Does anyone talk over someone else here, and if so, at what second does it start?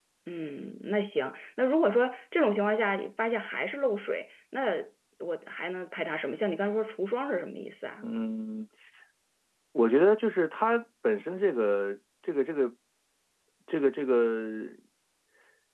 none

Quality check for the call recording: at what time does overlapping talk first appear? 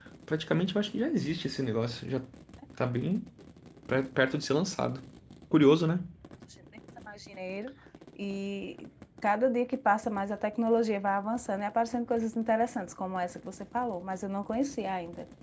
none

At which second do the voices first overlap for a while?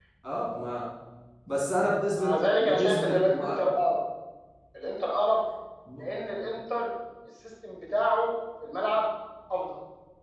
2.1 s

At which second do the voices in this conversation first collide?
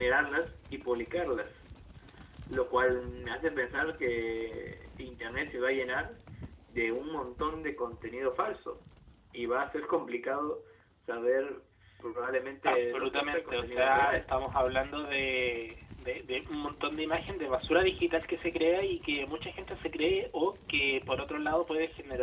12.7 s

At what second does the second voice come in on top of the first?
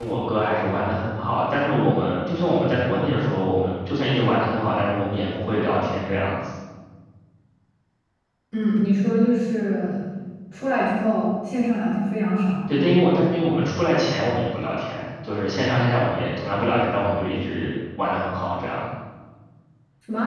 none

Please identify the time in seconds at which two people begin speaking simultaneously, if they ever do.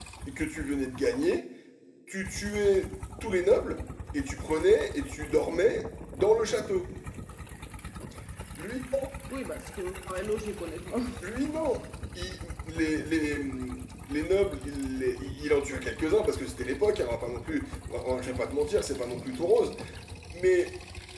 none

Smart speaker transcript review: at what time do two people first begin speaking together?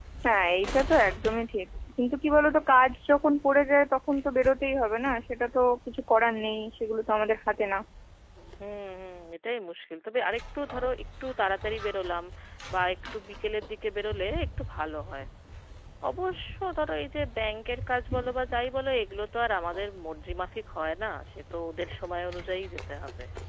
none

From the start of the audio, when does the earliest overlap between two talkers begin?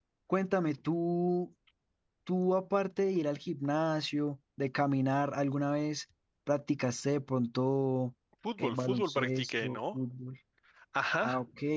8.6 s

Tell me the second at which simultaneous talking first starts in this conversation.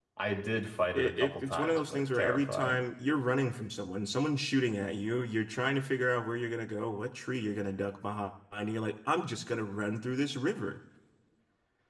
0.9 s

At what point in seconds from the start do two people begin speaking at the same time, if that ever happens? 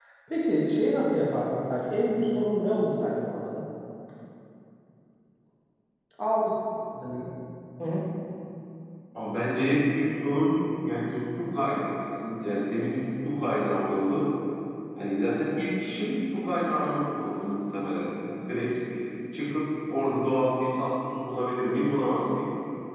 none

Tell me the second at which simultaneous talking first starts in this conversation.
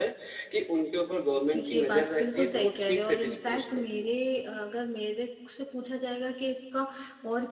1.5 s

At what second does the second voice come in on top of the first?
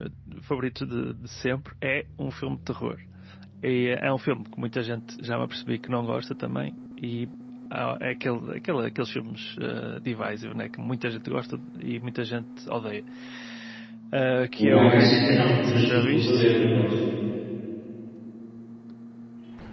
14.6 s

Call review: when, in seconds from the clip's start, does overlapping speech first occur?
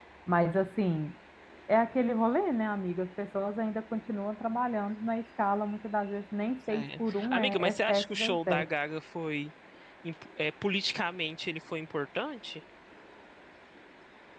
6.7 s

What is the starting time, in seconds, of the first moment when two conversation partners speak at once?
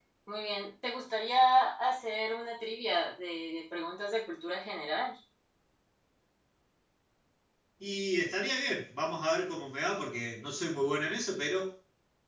none

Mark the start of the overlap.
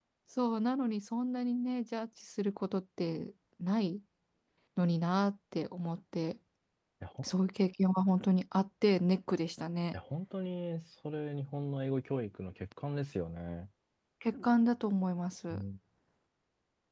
none

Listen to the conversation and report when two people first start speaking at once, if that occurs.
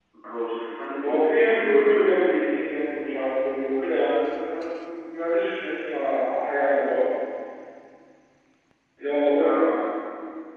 1.0 s

